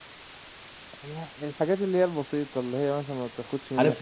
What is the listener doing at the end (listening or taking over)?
taking over